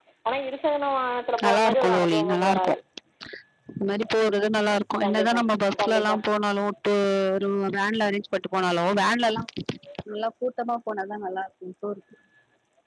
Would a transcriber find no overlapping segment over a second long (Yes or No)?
No